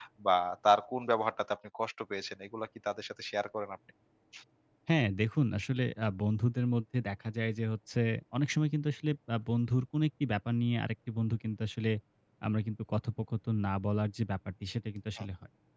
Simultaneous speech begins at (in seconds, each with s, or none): none